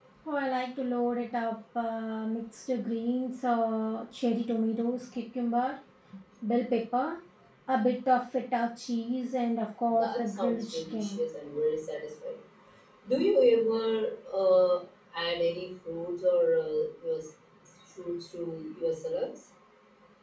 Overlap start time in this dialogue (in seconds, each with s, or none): 9.9 s